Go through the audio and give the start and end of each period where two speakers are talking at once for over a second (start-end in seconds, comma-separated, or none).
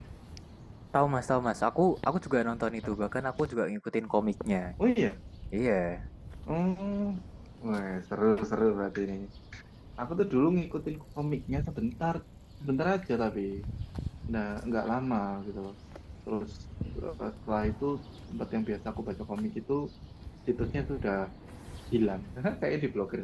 none